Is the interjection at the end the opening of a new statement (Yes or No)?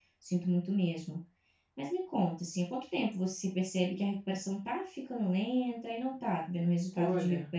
Yes